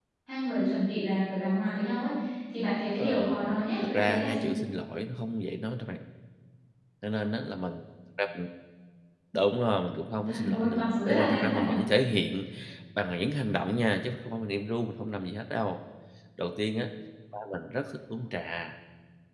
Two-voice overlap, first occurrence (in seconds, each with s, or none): 3.0 s